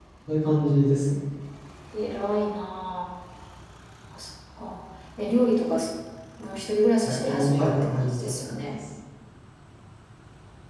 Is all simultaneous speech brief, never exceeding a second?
No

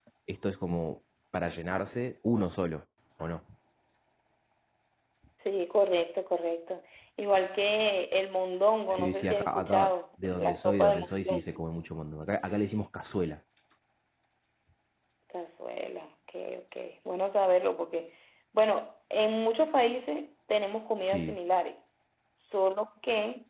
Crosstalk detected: Yes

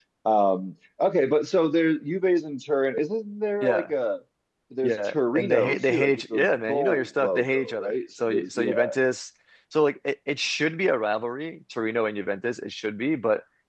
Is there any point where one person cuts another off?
Yes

